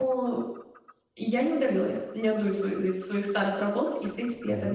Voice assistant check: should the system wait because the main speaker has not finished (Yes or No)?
Yes